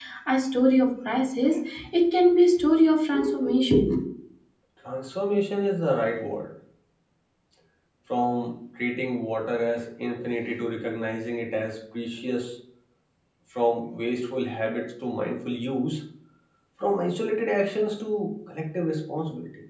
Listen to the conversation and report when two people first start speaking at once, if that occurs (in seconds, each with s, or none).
none